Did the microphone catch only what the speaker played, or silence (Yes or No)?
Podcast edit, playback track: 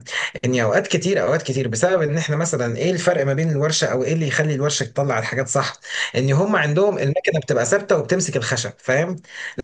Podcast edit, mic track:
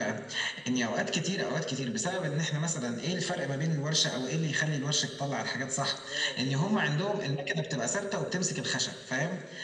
No